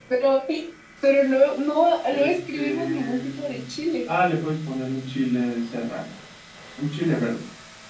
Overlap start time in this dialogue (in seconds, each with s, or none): 2.1 s